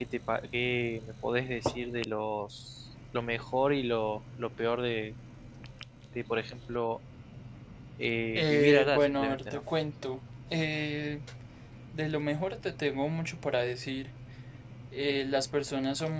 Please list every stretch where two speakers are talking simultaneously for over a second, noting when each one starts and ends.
8.4-9.6

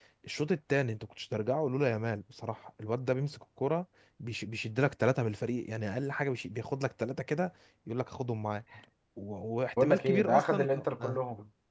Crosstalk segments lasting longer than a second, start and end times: 9.8-11.2

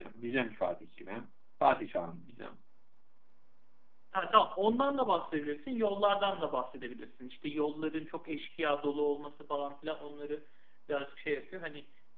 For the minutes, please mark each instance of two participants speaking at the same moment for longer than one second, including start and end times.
none

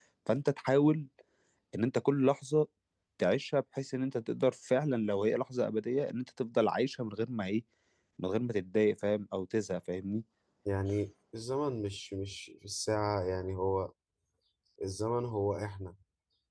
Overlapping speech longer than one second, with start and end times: none

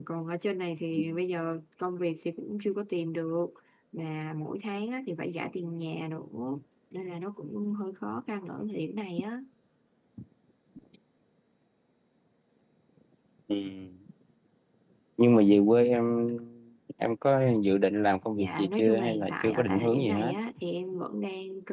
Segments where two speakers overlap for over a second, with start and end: 18.3-20.3

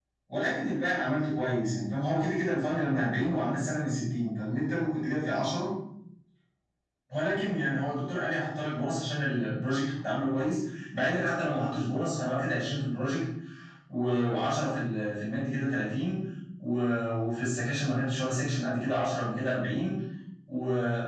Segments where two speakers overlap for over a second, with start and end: none

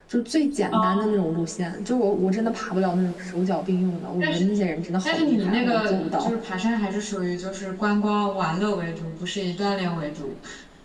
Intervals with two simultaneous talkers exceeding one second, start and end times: 5.0-6.3

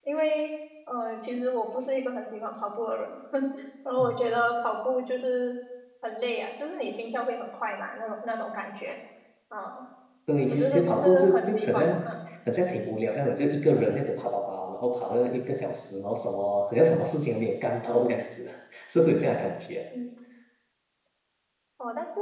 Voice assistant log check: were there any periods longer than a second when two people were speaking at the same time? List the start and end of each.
10.5-12.0

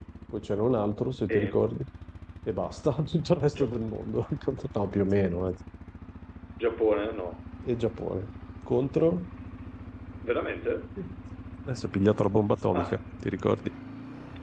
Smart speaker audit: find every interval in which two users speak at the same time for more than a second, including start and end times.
none

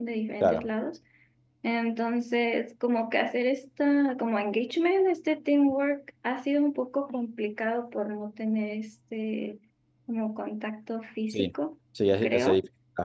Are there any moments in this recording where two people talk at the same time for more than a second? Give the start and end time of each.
none

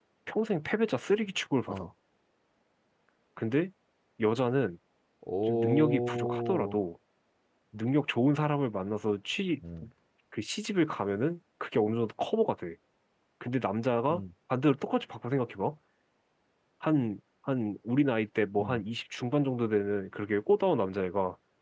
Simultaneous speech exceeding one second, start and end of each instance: 5.5-6.8

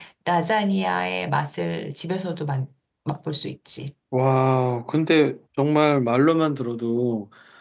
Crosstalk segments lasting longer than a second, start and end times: none

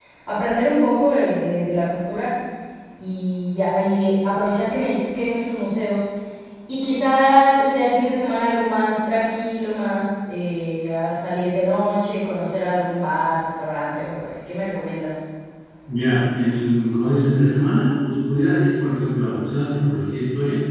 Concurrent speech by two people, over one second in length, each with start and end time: none

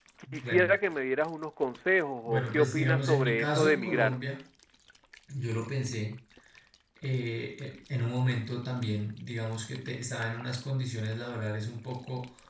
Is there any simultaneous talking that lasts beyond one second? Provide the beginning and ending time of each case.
2.3-4.2

